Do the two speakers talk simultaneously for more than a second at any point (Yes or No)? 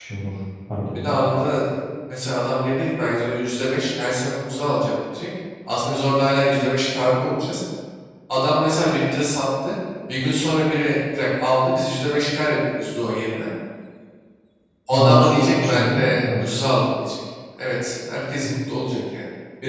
Yes